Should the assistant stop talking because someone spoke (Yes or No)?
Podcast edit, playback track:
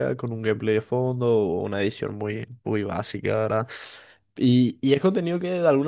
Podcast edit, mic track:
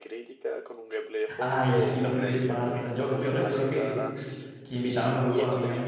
Yes